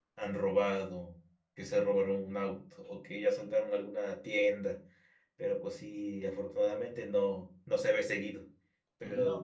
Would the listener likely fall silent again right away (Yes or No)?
Yes